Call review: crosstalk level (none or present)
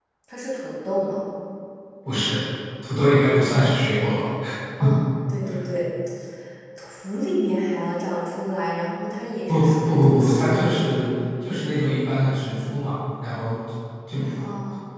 present